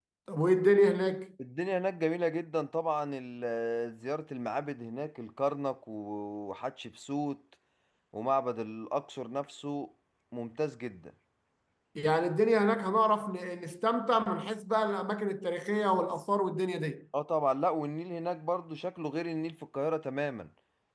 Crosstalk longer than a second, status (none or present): none